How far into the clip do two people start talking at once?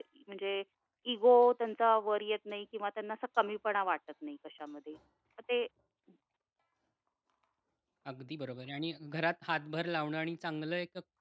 none

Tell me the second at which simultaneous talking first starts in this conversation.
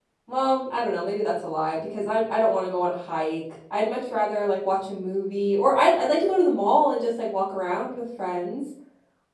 none

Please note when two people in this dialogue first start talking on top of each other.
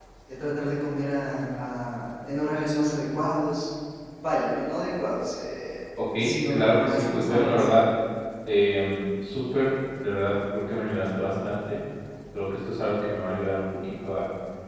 6.0 s

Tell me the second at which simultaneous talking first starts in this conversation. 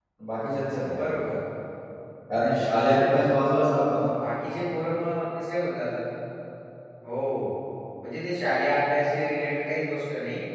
none

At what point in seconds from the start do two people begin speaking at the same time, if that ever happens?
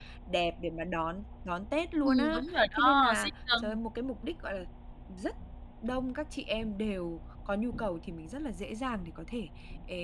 2.0 s

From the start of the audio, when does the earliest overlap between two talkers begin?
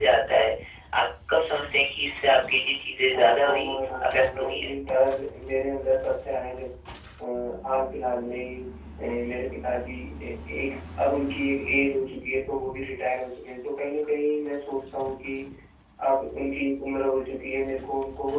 3.1 s

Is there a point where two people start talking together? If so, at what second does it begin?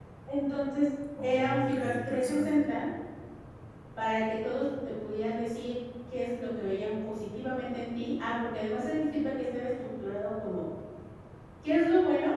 1.2 s

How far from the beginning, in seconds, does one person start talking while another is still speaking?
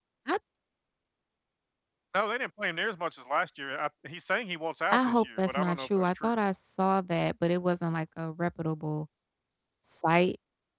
4.9 s

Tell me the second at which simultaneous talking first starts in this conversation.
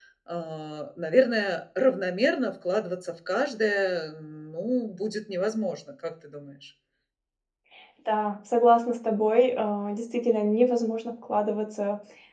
none

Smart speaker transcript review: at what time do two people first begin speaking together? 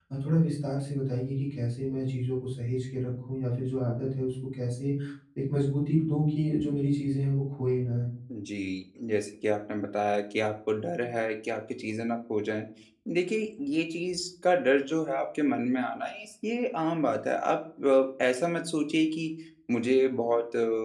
none

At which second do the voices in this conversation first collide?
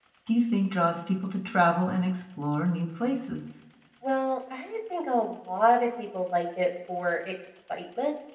none

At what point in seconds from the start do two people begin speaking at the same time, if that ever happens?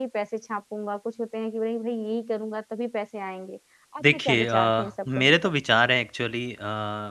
4.0 s

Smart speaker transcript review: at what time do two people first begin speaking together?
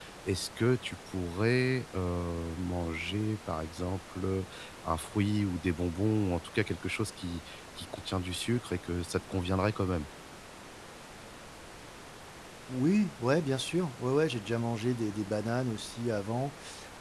none

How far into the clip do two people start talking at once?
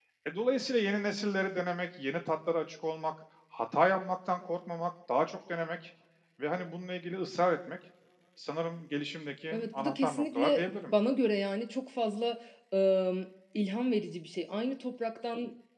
9.5 s

